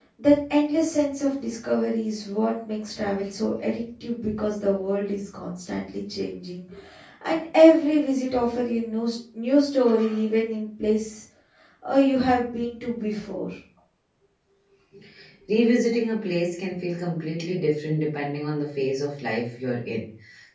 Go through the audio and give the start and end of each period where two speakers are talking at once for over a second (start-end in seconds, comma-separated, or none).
none